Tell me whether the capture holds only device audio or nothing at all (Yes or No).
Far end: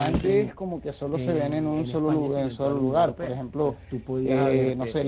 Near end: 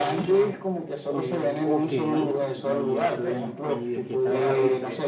No